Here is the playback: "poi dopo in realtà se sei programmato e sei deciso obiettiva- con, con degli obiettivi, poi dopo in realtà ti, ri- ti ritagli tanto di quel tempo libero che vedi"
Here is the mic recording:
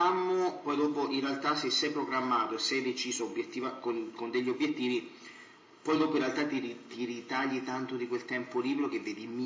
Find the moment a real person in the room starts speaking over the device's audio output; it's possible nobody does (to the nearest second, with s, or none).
none